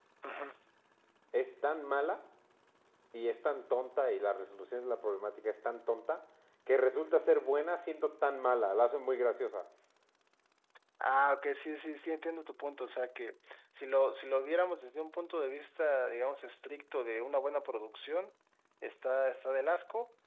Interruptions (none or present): none